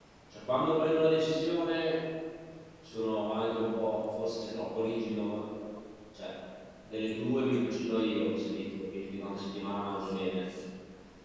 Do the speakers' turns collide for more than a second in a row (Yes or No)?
No